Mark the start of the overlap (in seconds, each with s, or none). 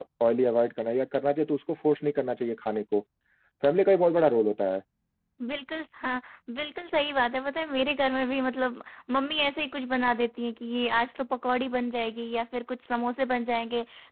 none